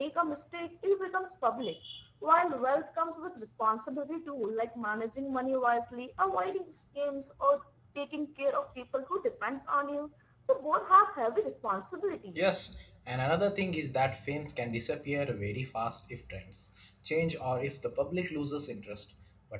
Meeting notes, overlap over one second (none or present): none